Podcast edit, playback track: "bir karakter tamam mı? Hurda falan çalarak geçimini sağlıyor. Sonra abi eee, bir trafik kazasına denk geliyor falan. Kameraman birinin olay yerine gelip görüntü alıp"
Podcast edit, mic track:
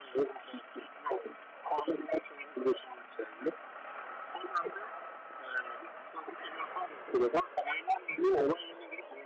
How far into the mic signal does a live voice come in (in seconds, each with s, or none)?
none